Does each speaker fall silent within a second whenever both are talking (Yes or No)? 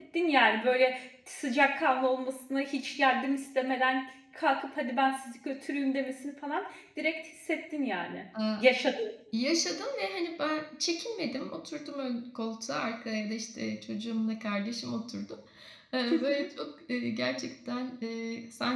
Yes